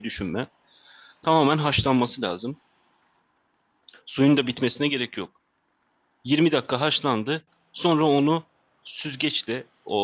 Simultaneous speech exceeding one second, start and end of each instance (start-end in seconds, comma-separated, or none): none